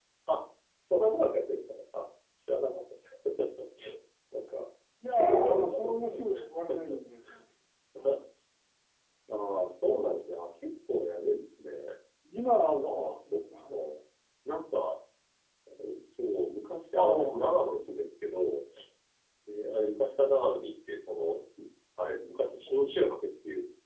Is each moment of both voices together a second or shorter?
No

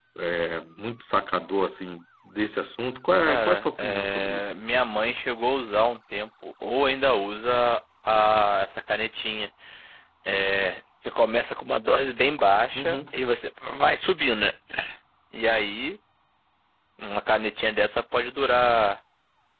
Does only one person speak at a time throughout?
No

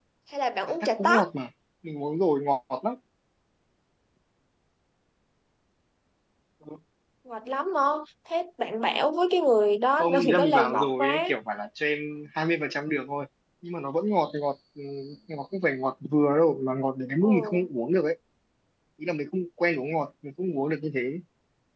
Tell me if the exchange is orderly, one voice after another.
No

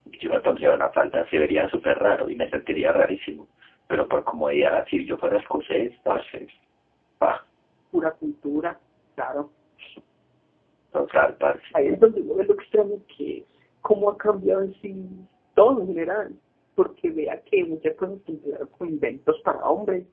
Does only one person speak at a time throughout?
Yes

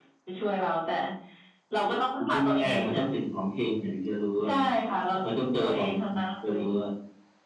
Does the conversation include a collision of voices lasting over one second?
Yes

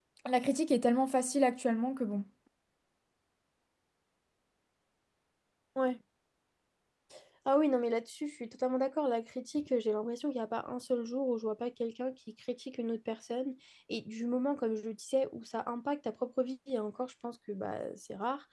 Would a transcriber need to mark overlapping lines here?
No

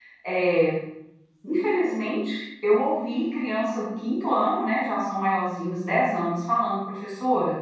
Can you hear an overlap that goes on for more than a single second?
No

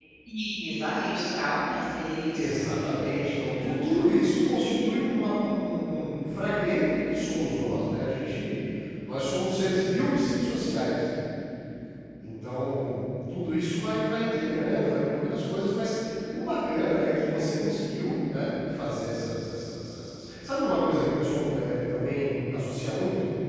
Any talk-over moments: Yes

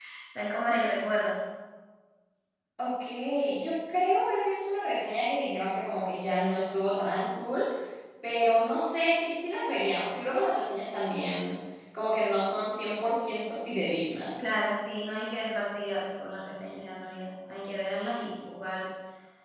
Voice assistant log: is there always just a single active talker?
Yes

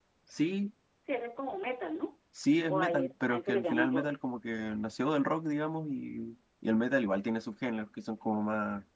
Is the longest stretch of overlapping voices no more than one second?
No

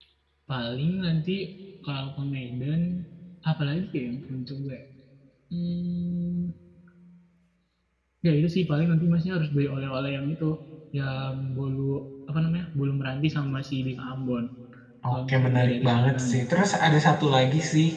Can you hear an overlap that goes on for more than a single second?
Yes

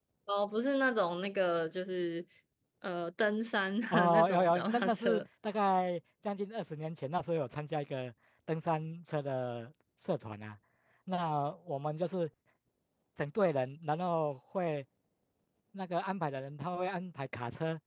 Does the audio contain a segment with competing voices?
Yes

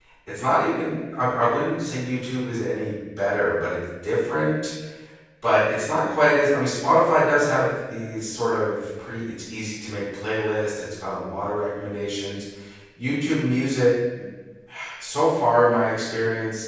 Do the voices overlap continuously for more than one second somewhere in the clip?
No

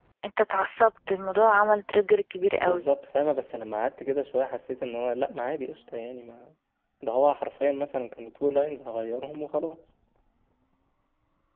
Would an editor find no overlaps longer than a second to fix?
Yes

